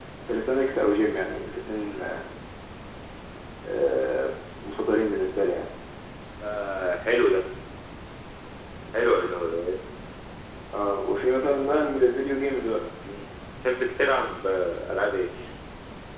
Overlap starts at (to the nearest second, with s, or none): none